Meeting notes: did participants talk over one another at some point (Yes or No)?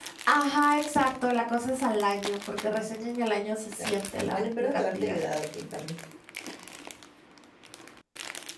Yes